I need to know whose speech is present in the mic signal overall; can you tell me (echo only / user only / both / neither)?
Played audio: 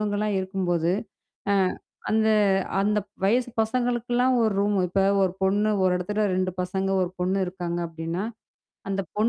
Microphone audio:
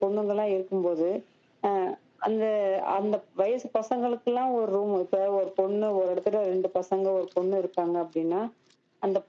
echo only